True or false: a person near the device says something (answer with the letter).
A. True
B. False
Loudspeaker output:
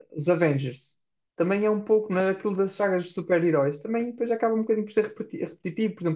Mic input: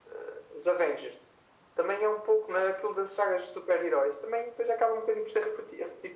B